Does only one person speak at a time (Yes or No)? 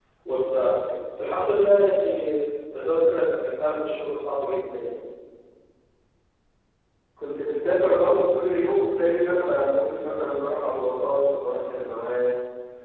Yes